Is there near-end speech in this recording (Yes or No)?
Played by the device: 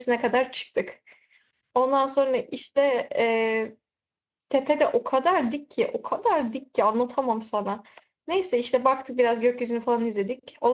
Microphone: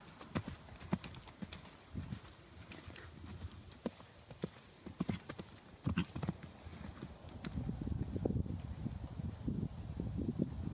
No